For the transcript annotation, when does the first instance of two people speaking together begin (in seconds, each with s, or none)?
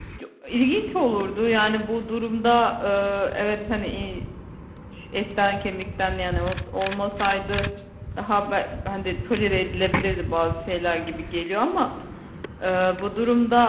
none